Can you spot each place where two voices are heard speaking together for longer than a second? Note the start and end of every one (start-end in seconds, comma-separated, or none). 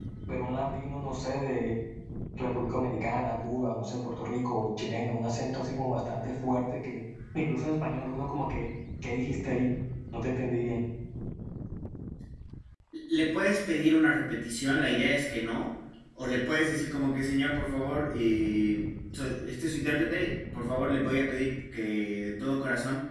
none